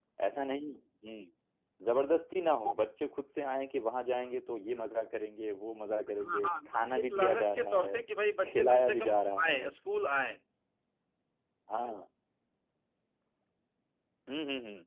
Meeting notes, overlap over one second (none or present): present